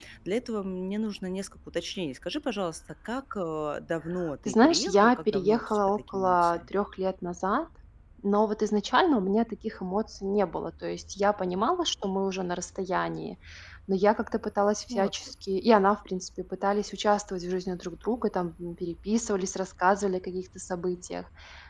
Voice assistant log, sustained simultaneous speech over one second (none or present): present